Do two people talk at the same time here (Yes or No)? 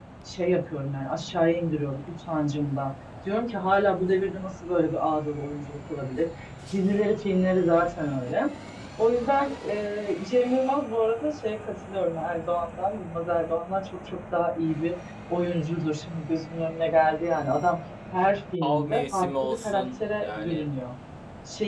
Yes